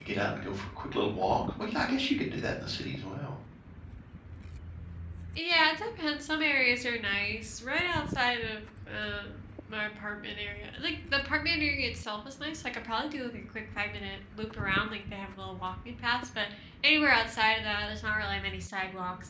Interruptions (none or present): none